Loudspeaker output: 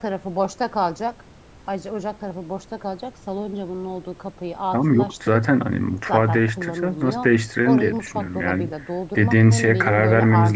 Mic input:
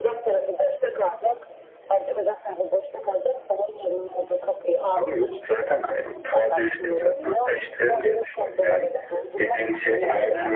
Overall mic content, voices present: echo only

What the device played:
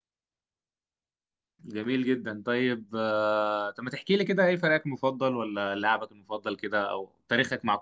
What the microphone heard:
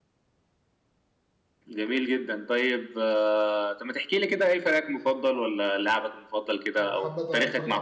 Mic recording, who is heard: both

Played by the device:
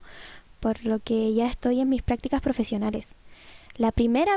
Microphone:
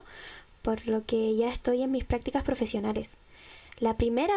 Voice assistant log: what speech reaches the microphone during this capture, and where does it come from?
echo only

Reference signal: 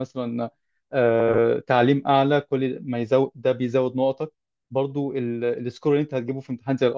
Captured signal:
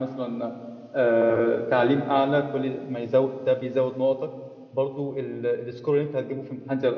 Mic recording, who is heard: echo only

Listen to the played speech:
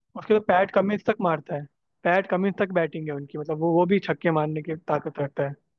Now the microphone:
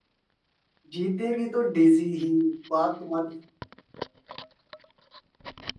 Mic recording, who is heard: user only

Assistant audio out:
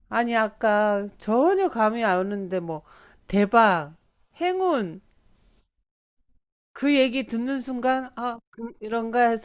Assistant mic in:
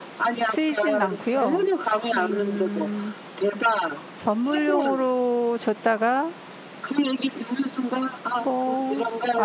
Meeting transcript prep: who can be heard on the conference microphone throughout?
both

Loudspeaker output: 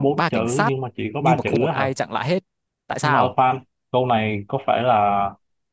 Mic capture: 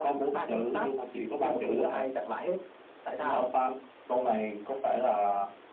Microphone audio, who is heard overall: echo only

